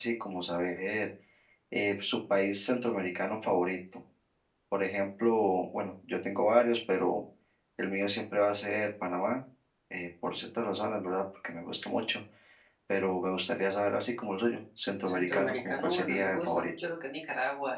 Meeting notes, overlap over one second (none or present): present